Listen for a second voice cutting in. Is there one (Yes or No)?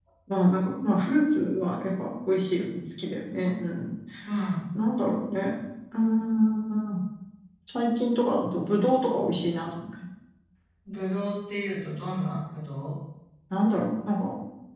No